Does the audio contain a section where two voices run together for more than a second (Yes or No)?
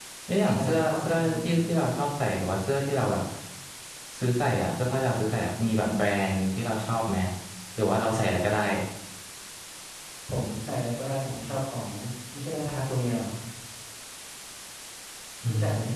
Yes